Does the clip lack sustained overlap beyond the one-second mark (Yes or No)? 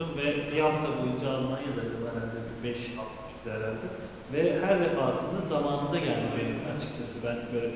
No